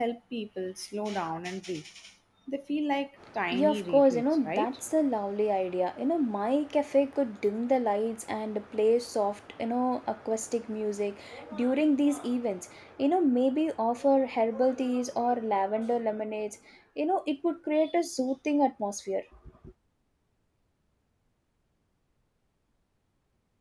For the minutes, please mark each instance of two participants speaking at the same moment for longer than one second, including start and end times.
3.5-4.8

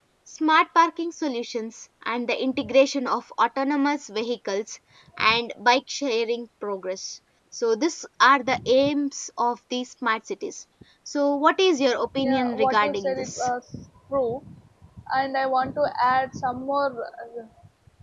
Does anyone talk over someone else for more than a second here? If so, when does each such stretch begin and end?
12.2-13.5

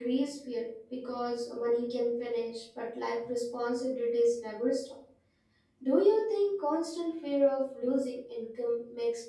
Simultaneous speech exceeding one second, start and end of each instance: none

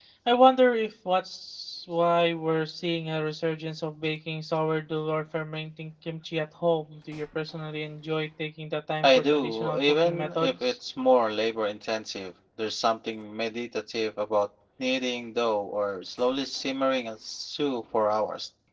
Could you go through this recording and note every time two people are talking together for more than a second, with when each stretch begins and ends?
9.0-10.7

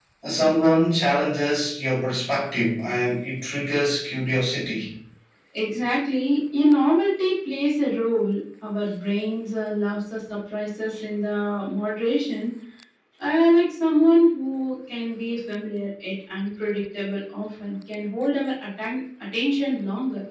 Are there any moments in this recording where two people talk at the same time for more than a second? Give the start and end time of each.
none

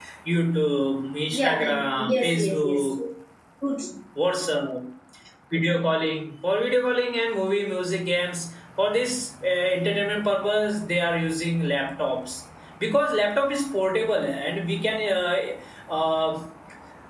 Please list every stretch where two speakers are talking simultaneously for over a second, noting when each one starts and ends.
1.3-2.9

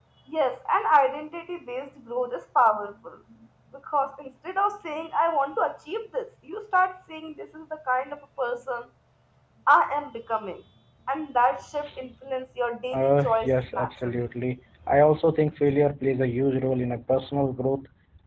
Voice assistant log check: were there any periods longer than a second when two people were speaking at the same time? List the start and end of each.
12.9-14.2

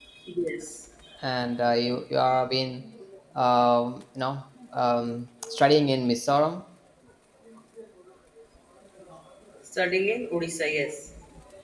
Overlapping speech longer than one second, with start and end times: none

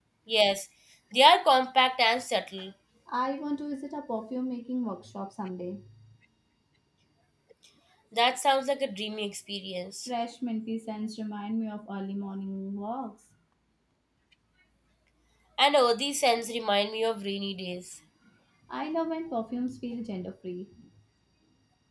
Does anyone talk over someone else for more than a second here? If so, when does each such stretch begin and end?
none

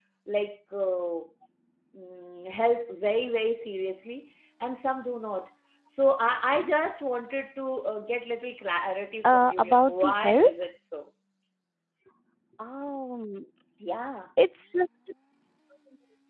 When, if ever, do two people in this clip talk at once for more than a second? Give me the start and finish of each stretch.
9.2-10.5

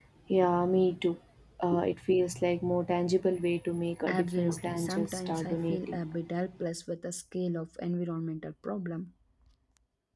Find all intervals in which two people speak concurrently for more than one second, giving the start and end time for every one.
4.1-6.0

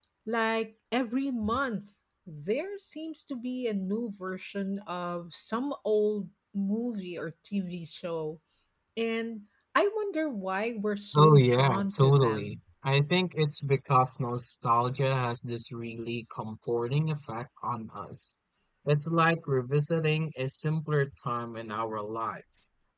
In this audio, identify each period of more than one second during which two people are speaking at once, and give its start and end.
11.1-12.6

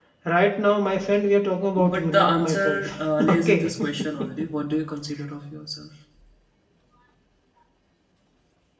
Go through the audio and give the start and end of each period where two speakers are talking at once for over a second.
1.9-3.7

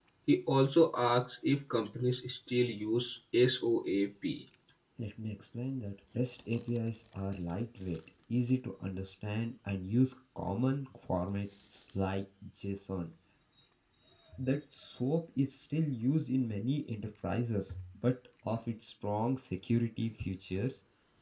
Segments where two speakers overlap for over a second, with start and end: none

